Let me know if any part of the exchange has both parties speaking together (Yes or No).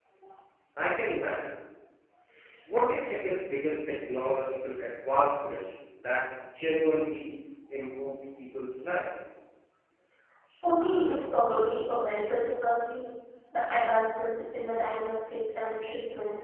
No